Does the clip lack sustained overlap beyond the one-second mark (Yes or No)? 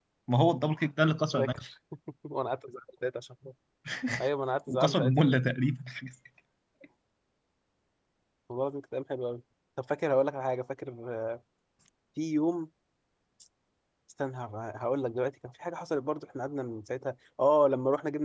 Yes